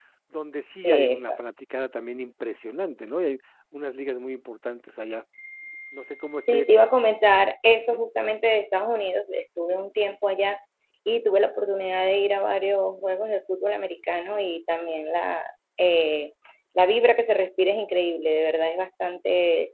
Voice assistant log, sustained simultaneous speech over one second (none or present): none